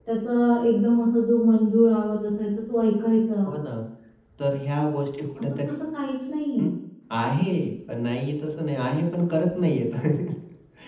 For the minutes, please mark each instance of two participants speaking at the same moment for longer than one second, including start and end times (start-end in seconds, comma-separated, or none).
none